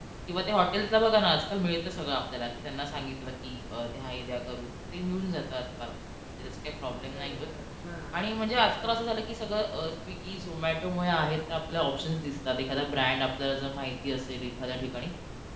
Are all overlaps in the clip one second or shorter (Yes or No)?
Yes